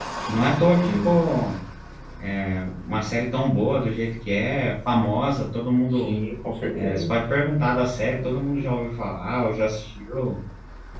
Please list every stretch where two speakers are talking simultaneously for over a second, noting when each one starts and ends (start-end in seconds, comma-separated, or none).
none